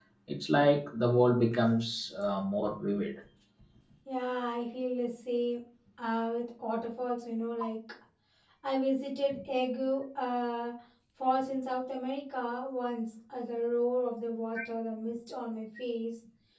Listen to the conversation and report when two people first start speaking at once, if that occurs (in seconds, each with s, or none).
none